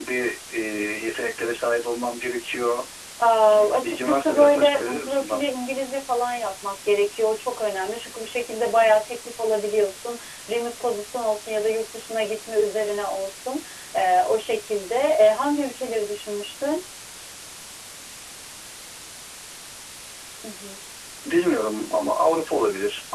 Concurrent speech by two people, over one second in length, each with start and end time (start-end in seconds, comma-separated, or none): 3.5-5.5